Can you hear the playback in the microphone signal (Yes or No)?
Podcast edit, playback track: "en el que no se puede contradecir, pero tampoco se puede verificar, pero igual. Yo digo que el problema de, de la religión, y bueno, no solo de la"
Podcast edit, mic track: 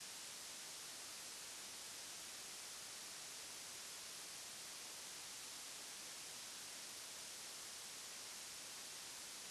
No